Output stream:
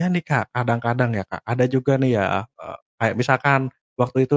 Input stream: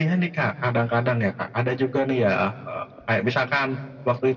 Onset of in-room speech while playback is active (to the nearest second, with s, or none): none